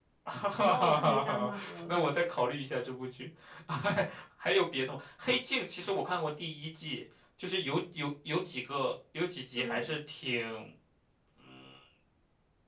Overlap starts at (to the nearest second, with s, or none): 1 s